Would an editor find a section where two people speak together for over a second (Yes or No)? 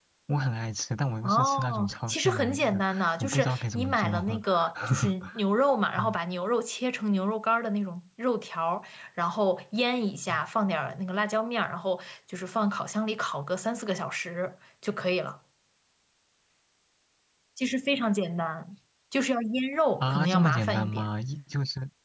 Yes